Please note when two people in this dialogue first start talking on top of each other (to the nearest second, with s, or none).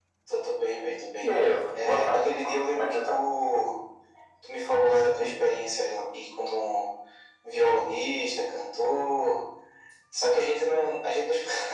2 s